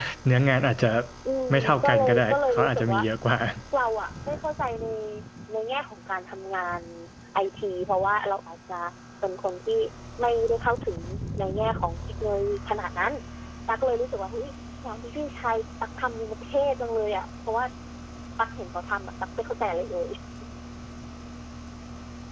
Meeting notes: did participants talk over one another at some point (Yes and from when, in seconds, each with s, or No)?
Yes, from 1.5 s